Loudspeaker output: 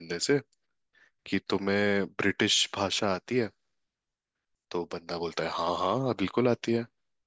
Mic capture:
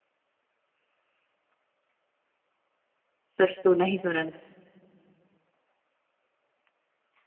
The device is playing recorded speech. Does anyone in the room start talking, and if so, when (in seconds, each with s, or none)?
3.4 s